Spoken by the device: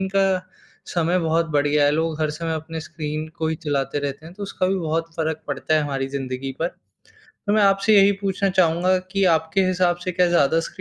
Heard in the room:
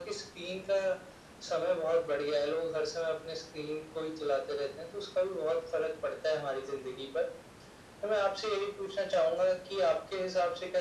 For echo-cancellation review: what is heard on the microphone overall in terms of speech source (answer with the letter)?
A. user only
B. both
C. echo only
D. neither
C